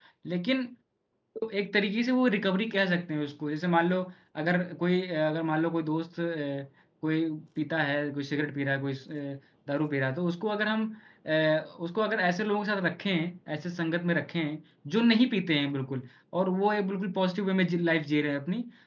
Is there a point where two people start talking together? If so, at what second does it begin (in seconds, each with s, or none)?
none